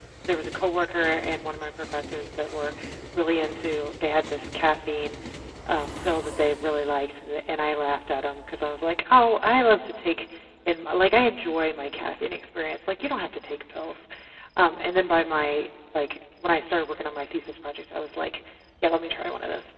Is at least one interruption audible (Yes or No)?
No